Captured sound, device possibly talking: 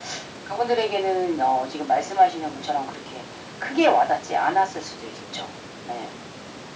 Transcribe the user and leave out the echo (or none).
none